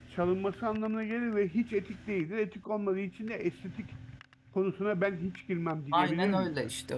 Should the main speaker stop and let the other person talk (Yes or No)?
Yes